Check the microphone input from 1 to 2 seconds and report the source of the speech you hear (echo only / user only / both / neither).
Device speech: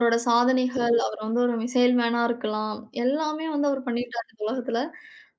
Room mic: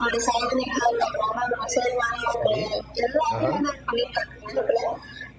echo only